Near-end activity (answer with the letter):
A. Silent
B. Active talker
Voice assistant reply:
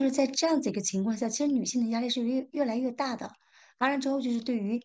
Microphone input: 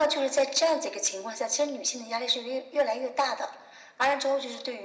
A